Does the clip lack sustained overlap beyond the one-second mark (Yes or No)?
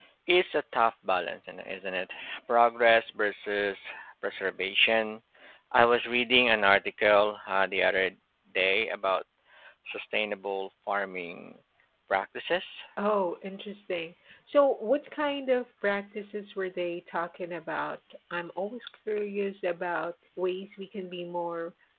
Yes